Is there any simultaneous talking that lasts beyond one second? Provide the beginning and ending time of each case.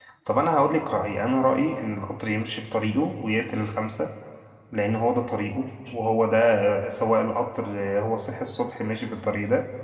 none

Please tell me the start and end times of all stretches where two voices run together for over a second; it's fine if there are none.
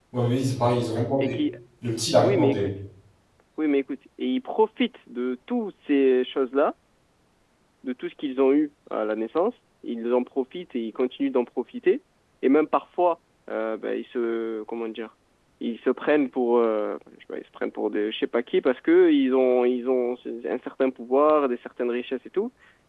none

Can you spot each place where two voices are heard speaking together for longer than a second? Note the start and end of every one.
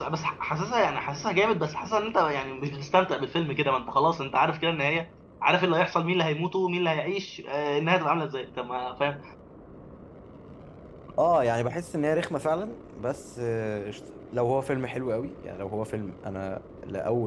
none

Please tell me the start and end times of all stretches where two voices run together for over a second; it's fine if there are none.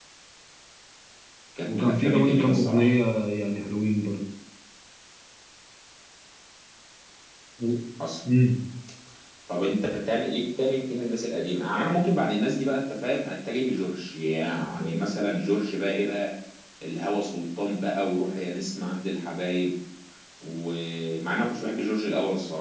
1.7-3.0

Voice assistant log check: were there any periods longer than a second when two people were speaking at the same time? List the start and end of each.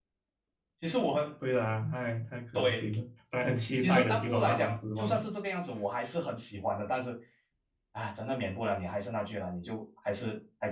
3.8-5.2

